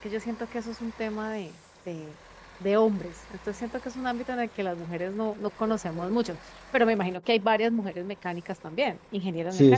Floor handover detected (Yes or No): Yes